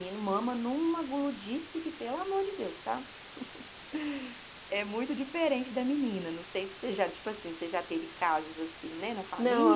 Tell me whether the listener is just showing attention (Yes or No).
No